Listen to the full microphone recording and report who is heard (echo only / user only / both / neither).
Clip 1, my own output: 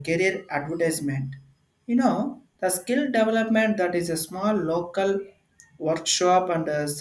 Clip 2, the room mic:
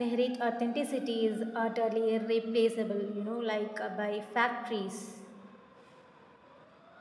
user only